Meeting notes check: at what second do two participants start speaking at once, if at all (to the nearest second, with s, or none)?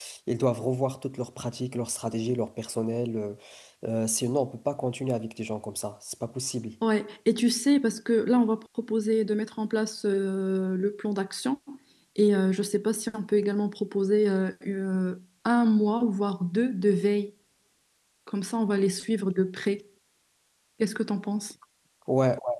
none